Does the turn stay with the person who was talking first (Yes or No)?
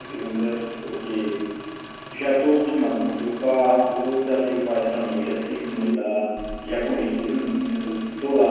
Yes